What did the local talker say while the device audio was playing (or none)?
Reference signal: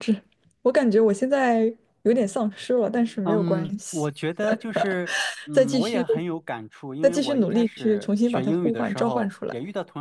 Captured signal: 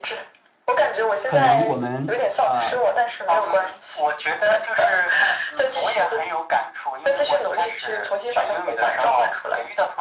可能我们呃